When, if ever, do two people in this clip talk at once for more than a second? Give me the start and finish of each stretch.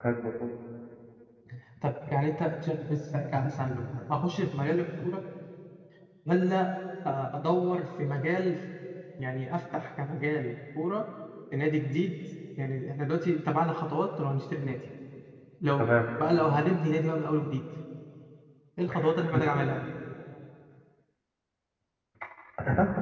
none

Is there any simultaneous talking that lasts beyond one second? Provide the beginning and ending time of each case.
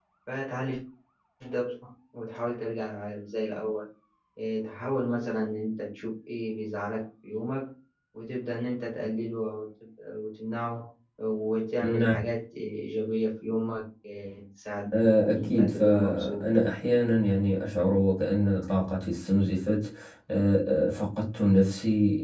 14.9-16.4

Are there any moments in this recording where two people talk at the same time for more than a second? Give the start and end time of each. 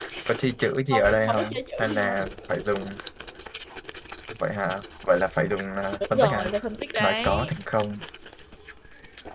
0.9-2.2

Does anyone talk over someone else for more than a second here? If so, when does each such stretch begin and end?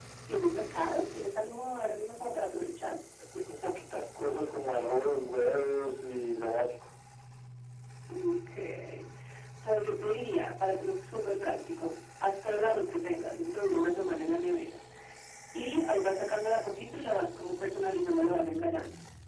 none

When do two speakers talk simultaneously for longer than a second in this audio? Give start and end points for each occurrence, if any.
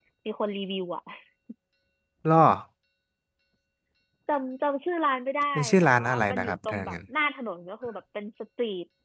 5.6-7.0

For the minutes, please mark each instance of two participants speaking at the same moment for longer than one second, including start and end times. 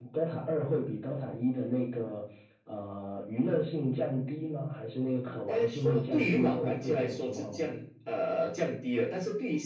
5.2-7.7

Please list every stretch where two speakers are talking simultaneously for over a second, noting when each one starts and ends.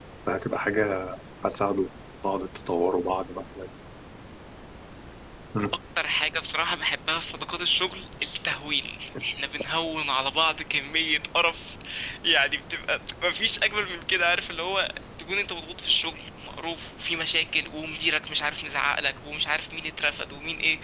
none

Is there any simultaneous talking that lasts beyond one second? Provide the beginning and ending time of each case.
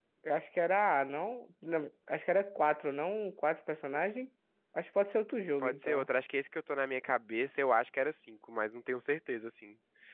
none

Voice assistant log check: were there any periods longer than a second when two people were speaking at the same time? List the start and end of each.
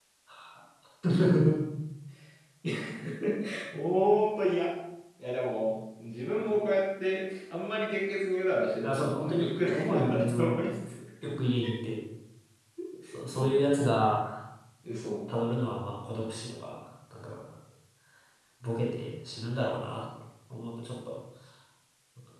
8.8-10.6

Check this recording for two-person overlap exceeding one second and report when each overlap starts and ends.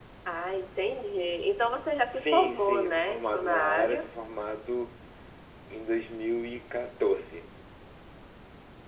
2.1-4.0

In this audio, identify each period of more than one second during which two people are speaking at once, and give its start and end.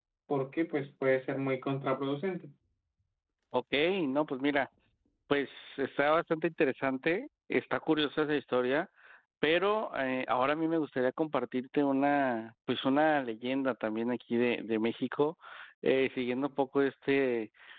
none

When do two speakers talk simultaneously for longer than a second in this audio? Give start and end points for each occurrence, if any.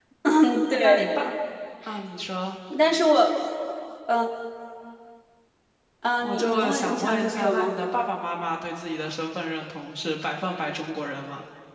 6.2-7.8

